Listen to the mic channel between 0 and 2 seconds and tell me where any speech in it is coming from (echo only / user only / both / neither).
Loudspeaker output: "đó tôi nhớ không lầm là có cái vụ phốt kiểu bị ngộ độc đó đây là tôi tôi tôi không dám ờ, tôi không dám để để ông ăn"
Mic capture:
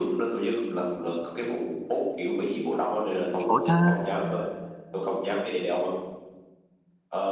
echo only